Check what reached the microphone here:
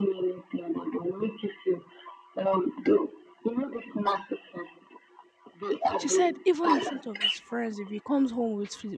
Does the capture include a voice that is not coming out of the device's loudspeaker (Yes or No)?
Yes